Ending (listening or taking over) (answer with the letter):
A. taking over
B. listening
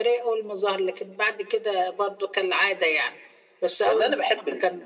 A